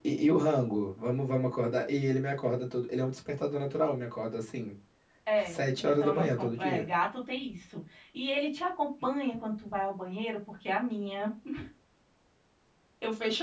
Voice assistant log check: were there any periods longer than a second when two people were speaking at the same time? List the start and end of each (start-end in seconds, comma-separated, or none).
5.4-6.9